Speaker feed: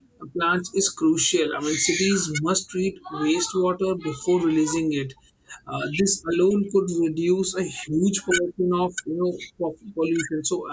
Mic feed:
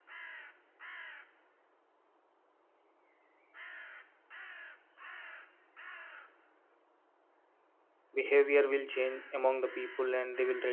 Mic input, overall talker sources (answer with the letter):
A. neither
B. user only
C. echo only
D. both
B